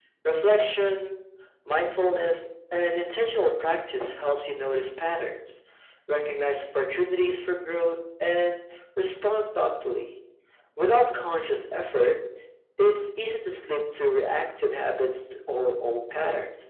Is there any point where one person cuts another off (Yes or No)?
No